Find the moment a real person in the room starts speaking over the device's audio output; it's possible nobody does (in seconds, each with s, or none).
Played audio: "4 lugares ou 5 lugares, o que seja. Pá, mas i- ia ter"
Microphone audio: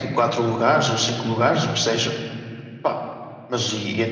none